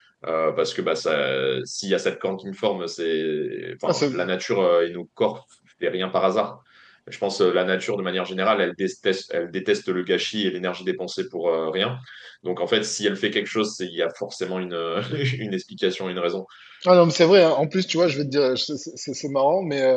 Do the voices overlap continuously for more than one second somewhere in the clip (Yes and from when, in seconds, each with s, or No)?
No